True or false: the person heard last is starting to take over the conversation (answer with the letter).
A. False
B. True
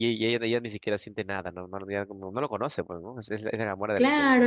B